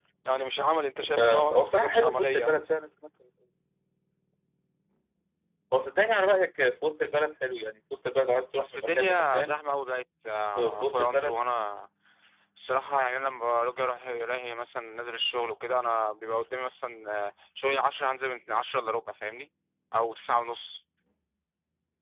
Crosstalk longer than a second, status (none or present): present